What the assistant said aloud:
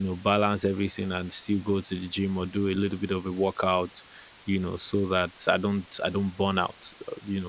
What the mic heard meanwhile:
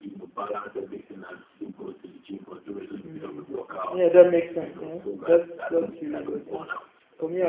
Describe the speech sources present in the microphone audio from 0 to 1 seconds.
echo only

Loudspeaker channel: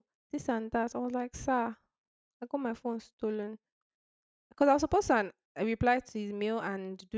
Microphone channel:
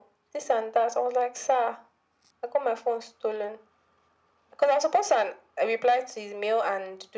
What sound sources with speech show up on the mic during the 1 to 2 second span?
echo only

